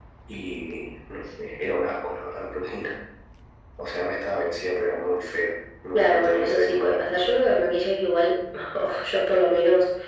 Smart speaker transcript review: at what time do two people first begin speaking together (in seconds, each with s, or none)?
5.9 s